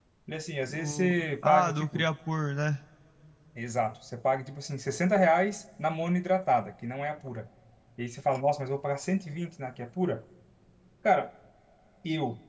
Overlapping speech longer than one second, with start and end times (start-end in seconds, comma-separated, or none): 0.7-2.1